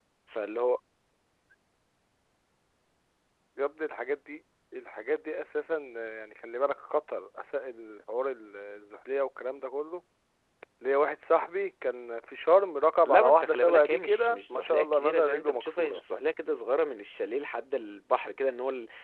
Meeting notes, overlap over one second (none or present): present